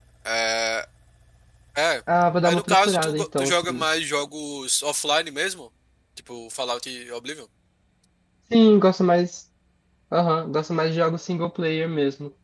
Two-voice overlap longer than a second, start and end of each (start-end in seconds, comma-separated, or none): 2.4-3.9